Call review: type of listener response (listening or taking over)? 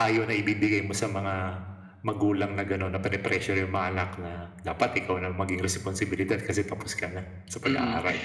taking over